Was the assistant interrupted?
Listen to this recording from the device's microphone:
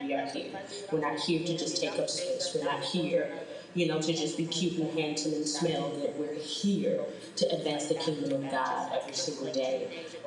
Yes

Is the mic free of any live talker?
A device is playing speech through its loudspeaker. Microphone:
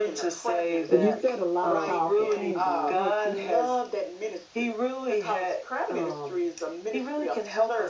No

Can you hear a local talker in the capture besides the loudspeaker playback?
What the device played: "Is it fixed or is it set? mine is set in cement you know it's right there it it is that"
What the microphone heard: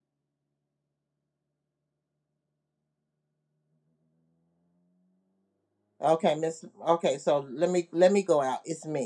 Yes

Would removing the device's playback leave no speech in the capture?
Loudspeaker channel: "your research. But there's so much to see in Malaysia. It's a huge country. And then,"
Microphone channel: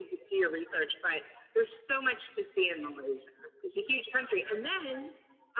Yes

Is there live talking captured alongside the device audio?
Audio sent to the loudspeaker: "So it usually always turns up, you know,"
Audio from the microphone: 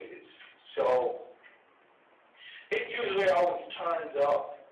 No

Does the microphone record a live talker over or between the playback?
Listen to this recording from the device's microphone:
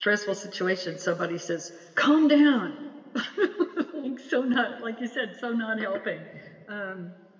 Yes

